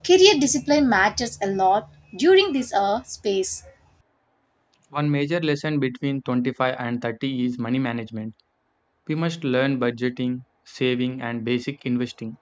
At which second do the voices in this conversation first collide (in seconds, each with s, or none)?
none